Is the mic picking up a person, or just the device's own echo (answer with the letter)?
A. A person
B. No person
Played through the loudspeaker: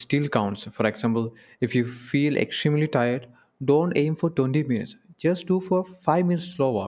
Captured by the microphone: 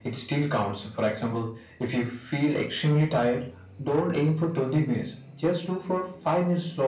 B